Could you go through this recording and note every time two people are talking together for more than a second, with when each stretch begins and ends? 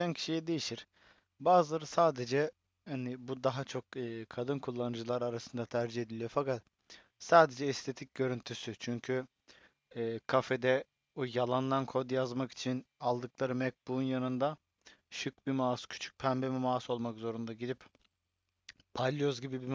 none

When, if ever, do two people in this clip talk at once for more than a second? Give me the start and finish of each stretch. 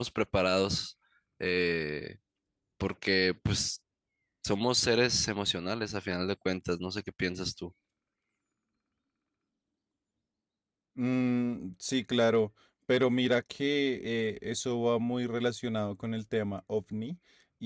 none

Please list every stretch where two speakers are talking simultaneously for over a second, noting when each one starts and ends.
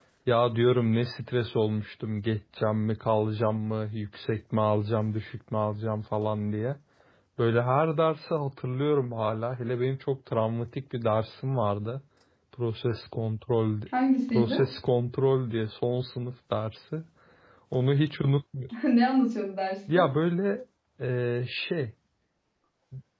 none

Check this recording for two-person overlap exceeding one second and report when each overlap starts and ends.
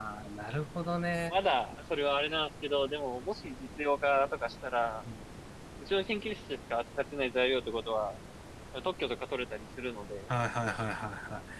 none

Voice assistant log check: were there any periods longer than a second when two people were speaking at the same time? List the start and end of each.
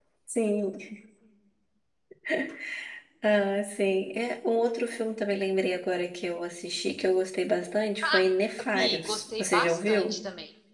8.7-10.2

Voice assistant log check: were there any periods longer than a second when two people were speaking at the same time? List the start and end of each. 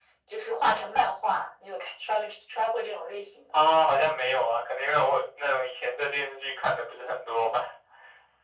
none

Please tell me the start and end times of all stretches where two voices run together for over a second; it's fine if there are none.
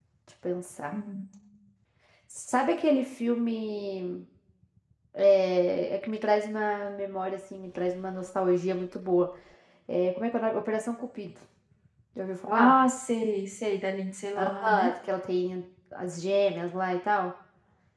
none

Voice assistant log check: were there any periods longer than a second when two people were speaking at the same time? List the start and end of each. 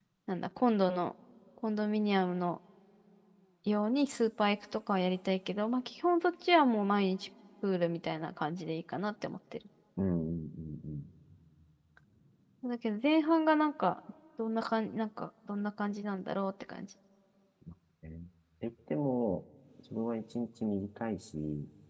none

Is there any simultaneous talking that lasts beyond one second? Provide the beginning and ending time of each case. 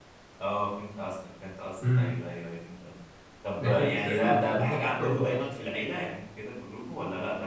3.6-5.4

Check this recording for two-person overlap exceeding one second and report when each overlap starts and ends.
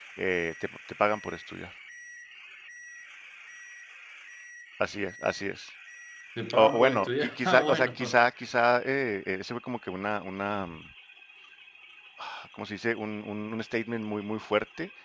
6.5-8.0

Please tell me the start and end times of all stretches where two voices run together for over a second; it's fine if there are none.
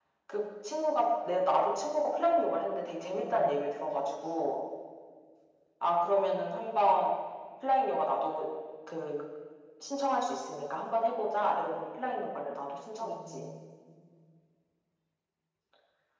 none

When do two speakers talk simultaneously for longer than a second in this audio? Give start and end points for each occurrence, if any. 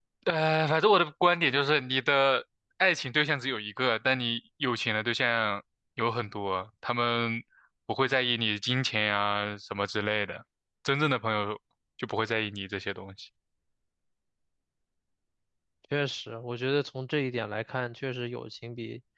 none

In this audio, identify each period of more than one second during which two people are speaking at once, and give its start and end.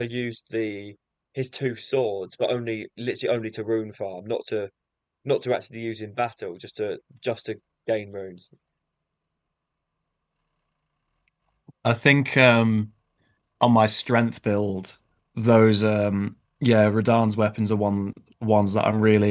none

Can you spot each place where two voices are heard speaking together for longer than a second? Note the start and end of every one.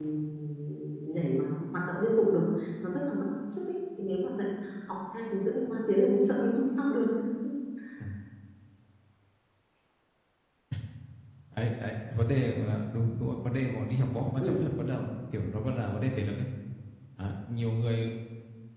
none

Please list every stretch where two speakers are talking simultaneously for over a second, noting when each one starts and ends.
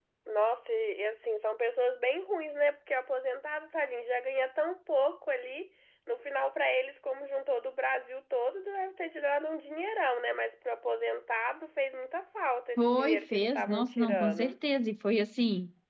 12.8-14.5

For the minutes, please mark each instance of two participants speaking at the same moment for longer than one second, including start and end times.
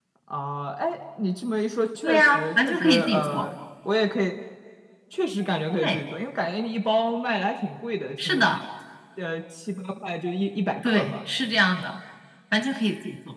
2.0-3.5

